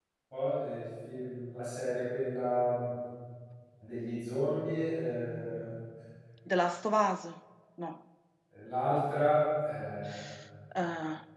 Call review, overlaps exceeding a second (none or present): none